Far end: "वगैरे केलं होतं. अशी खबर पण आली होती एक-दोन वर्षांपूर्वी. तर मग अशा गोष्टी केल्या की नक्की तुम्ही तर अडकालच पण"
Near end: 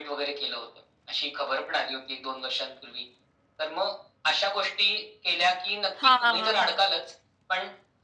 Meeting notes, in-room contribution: present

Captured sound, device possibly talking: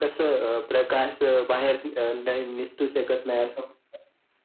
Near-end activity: none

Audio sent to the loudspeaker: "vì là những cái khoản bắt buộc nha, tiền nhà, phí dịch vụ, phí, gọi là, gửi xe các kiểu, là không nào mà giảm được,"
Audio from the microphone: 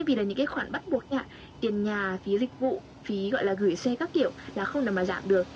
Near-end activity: none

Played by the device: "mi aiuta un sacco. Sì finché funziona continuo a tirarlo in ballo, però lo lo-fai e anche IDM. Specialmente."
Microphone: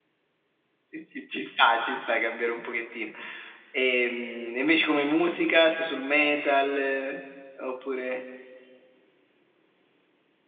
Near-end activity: present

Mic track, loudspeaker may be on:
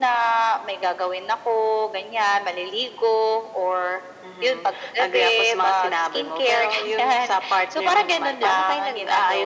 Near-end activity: none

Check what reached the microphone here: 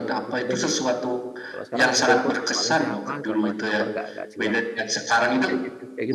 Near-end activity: present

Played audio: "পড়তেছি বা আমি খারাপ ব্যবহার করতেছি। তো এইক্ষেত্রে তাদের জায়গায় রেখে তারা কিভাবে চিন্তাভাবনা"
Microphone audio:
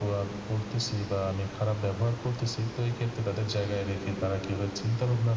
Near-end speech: none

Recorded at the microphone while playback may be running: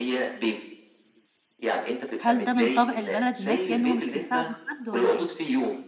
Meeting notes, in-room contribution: present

